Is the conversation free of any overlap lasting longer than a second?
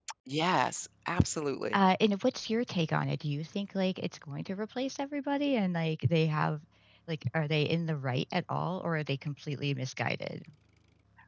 Yes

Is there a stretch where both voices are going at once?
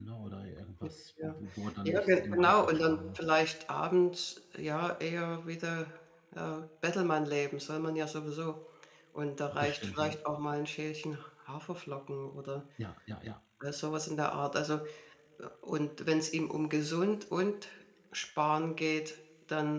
Yes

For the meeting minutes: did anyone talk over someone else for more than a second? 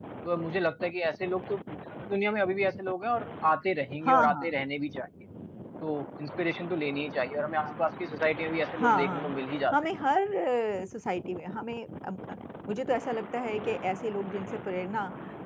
Yes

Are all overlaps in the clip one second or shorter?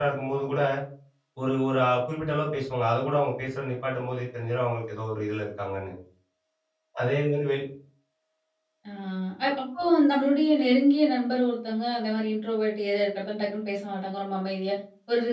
Yes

